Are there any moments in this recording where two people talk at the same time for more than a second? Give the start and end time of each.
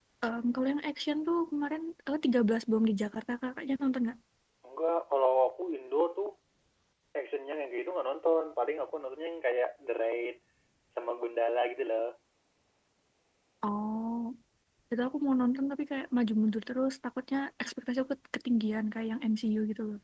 none

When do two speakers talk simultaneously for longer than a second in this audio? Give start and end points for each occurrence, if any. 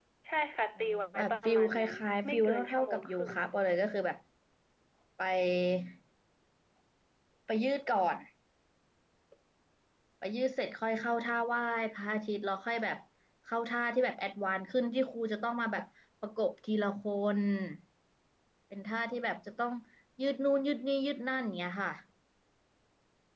0.8-3.3

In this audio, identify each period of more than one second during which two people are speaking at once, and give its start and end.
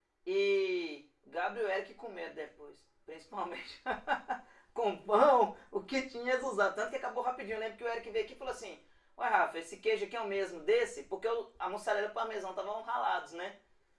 none

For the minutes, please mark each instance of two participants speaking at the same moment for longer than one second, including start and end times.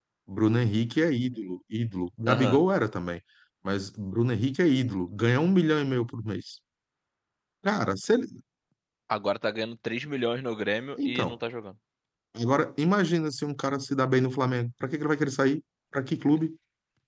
none

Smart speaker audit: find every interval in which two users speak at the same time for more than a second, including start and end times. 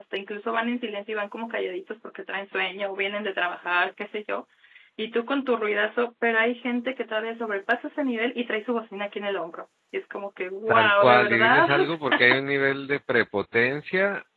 10.7-12.2

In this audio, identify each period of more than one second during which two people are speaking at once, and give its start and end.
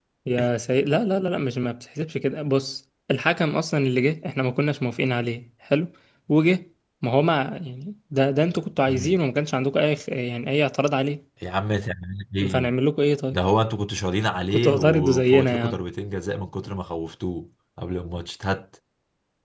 14.5-15.8

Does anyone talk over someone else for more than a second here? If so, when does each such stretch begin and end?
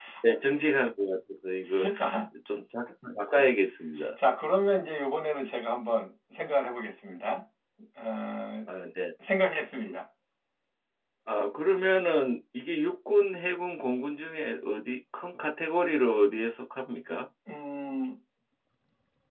none

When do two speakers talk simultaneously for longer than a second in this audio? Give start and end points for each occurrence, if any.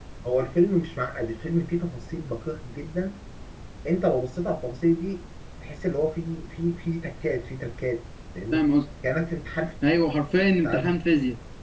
none

